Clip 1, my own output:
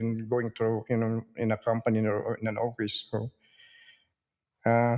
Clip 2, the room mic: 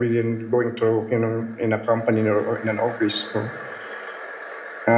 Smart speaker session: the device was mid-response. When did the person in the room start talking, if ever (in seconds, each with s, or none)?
none